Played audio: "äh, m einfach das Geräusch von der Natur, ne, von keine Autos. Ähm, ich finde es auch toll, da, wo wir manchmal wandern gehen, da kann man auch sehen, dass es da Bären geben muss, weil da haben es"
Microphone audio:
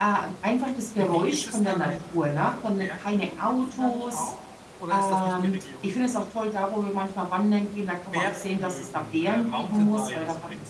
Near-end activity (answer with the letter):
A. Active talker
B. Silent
A